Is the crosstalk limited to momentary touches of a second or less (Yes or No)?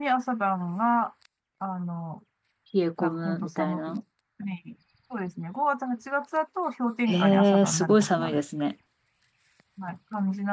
No